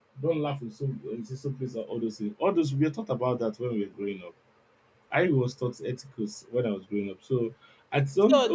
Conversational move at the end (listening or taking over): taking over